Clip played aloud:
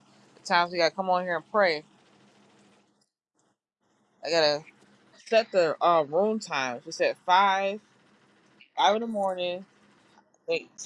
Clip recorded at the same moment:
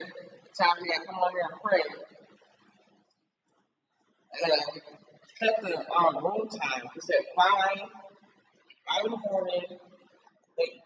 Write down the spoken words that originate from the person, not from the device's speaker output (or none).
none